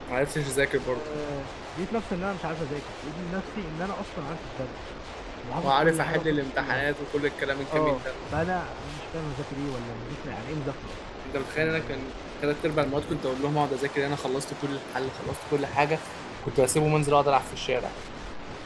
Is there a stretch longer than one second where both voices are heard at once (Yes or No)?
Yes